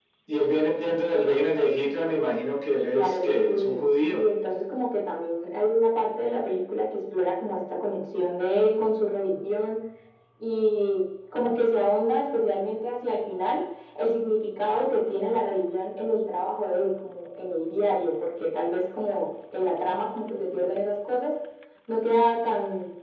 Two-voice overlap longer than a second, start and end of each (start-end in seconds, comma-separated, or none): 2.8-4.2